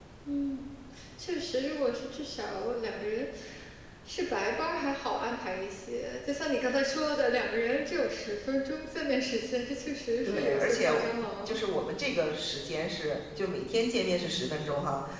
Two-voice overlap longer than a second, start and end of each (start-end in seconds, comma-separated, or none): 10.2-11.6